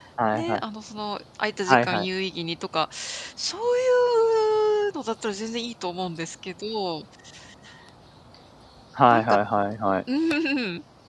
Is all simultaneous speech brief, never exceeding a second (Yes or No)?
Yes